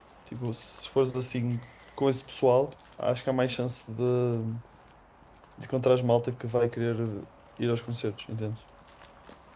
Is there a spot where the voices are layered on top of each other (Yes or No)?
No